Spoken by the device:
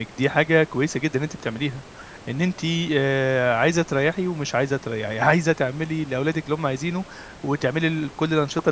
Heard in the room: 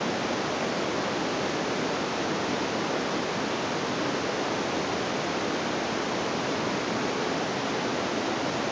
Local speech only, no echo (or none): none